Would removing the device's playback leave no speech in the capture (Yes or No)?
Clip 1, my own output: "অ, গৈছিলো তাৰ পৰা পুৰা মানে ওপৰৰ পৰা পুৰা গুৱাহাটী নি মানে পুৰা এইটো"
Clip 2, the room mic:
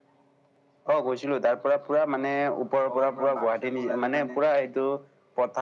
No